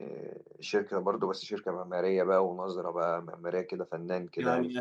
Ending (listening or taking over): taking over